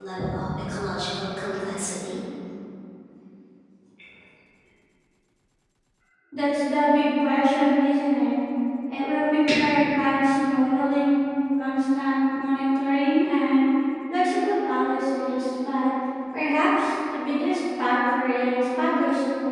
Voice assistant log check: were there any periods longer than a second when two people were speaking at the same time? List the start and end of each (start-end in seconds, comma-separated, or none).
none